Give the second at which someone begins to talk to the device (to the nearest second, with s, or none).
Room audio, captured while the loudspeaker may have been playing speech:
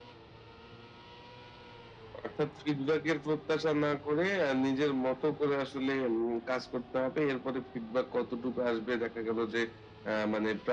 none